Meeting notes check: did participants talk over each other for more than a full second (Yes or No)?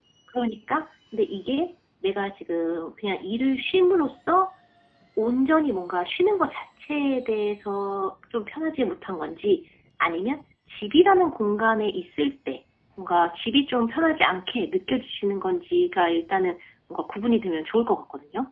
No